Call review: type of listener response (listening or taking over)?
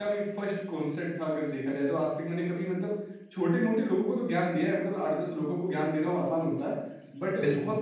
listening